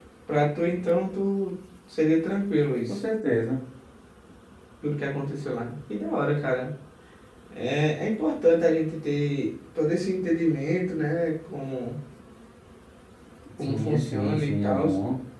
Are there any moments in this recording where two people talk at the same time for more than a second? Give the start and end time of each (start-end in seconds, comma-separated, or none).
13.6-14.9